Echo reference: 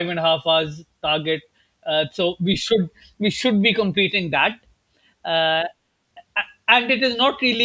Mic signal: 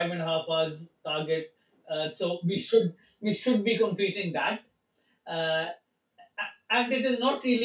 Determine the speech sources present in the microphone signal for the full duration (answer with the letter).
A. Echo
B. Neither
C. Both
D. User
A